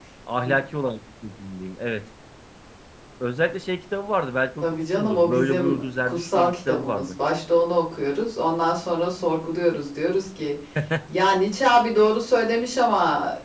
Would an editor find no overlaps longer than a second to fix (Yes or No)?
No